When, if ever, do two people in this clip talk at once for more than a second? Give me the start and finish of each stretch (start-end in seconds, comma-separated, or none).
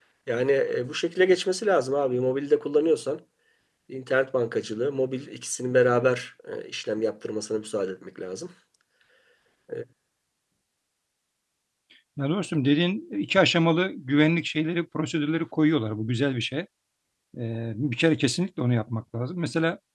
none